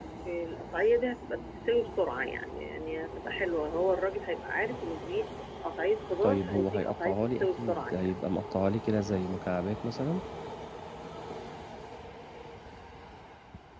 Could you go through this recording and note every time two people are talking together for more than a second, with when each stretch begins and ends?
6.2-8.1

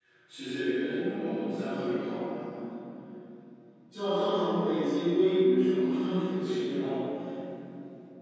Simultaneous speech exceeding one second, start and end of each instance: 0.7-2.3

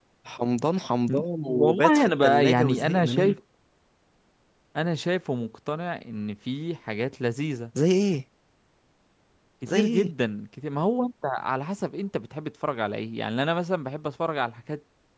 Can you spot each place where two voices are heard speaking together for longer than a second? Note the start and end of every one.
1.5-3.4

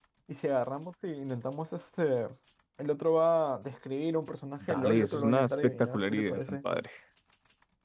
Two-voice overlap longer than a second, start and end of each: 4.7-6.6

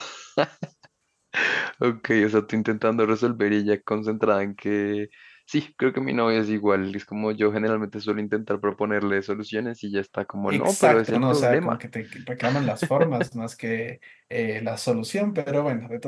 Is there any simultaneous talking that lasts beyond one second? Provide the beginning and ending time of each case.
10.5-11.8

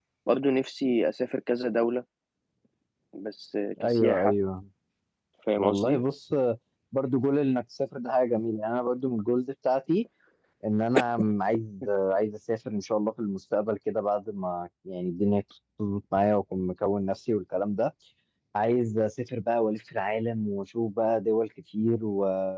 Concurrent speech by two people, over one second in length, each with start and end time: none

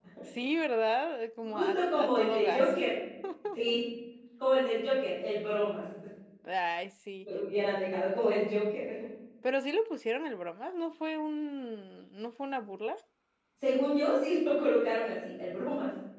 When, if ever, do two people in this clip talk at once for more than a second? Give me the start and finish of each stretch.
1.4-2.7

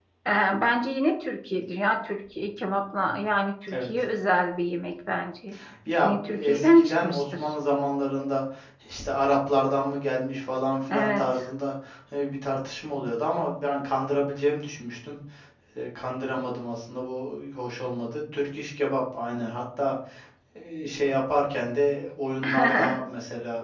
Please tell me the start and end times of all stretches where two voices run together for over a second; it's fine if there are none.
6.0-7.5

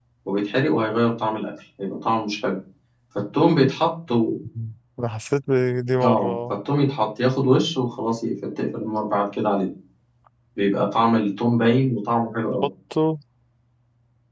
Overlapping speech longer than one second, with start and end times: none

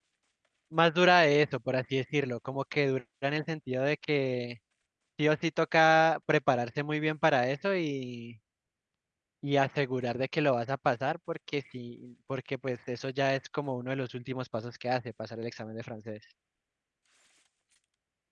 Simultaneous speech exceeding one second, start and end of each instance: none

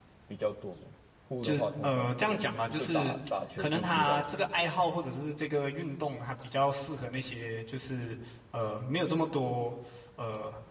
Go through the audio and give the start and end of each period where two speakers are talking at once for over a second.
1.4-3.2, 3.6-4.8

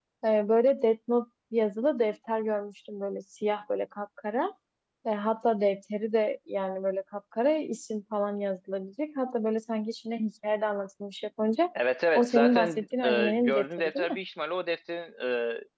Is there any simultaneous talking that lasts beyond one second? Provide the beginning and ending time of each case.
12.2-14.2

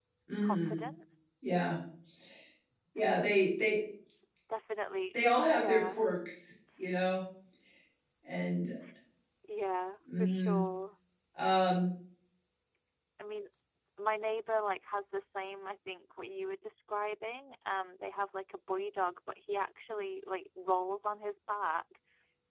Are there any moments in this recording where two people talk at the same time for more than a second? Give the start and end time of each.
none

